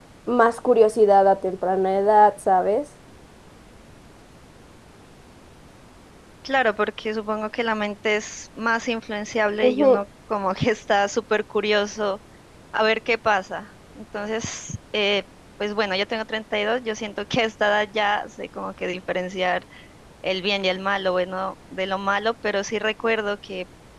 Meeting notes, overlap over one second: none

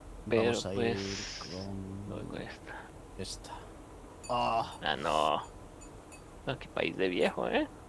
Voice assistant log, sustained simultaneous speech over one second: present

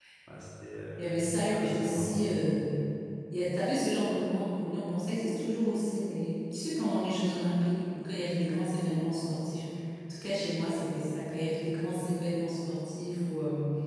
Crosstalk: present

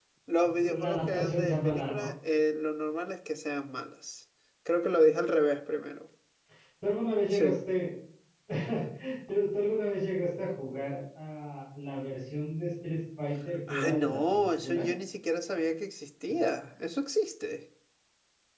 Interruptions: present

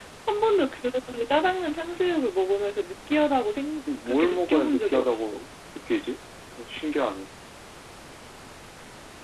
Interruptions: present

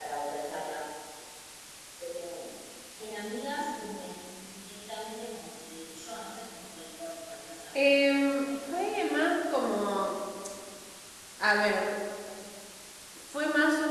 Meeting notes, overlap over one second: present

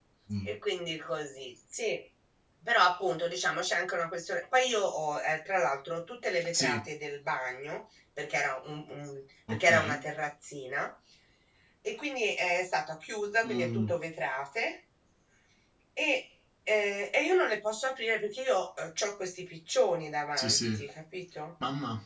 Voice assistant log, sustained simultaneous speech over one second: none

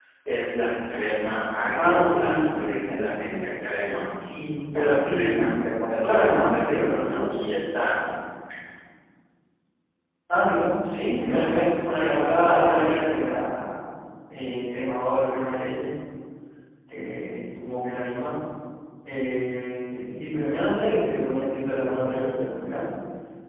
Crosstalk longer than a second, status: present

